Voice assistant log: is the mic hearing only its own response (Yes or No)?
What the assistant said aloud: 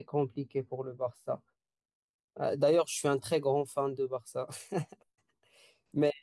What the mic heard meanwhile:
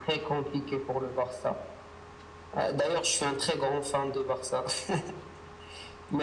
Yes